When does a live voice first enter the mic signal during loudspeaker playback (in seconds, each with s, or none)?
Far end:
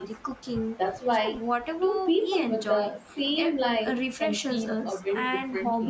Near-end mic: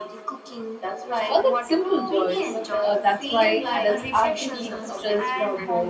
1.2 s